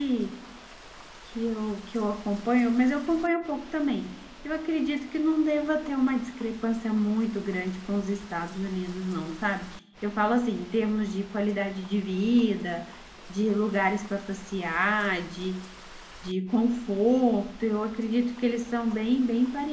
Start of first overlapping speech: none

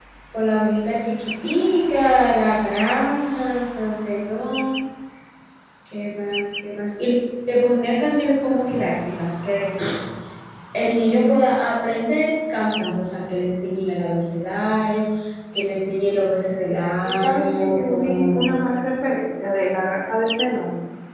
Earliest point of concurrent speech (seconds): 17.0 s

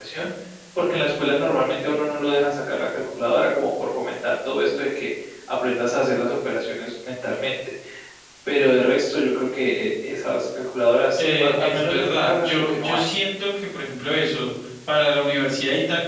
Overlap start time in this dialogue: 11.2 s

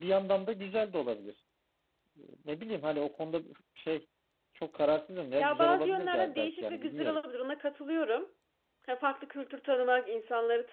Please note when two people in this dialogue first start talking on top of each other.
5.4 s

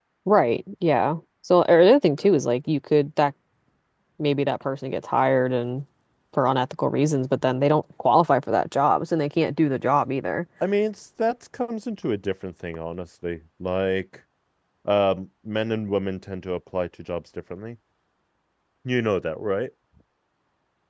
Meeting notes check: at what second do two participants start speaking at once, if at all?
none

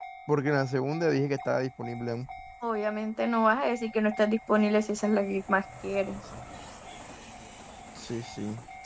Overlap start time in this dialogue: none

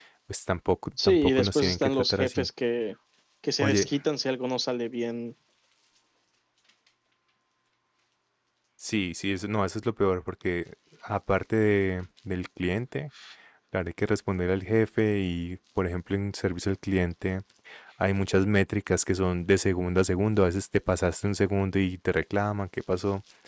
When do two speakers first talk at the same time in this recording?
1.0 s

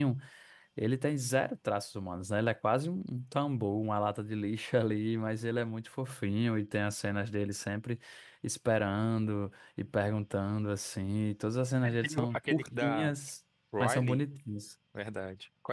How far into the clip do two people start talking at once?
11.8 s

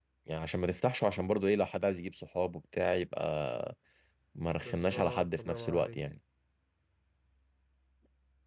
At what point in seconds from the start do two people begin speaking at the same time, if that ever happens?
4.7 s

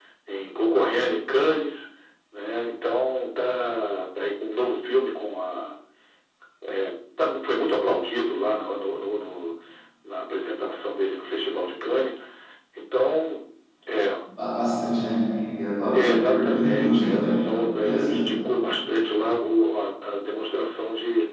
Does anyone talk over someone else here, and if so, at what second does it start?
15.9 s

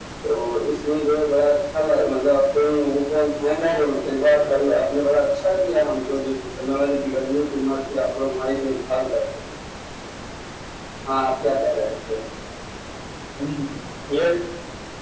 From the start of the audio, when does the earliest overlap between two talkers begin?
3.5 s

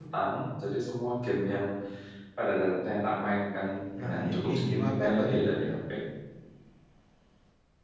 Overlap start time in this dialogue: 3.9 s

